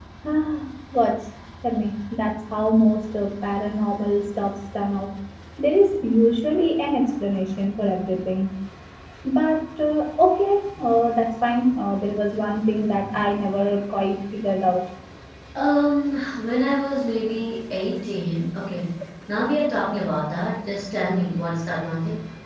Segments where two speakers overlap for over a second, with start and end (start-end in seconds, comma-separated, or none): none